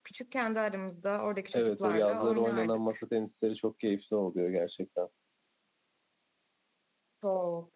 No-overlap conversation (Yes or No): No